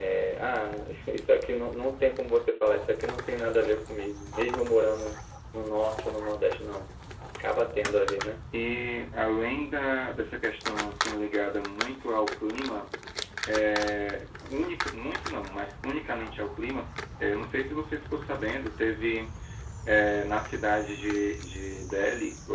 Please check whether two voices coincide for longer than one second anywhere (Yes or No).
No